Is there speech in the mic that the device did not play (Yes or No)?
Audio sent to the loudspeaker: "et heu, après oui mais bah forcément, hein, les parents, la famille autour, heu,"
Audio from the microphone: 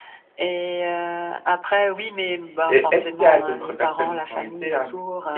Yes